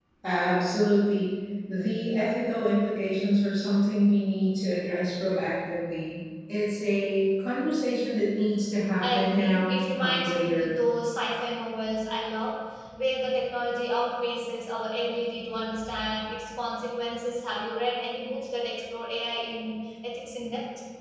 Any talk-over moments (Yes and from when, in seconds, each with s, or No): Yes, from 9.0 s